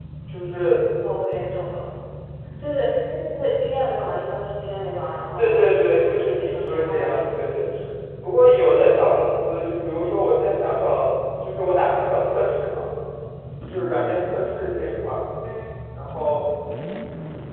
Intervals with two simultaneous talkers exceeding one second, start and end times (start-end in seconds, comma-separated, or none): 5.4-7.6